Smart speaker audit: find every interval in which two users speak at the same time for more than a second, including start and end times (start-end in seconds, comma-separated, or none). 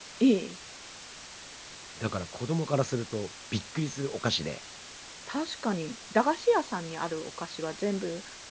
none